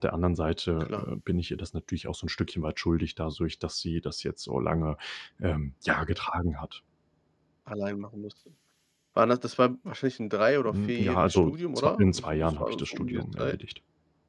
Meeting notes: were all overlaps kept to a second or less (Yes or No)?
No